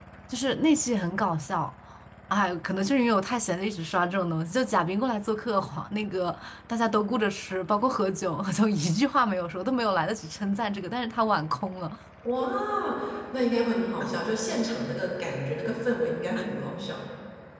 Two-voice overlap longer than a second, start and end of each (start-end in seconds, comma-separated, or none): none